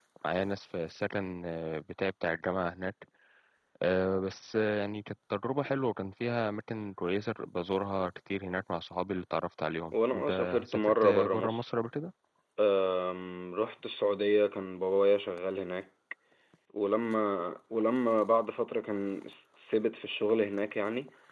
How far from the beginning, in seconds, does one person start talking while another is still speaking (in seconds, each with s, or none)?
9.9 s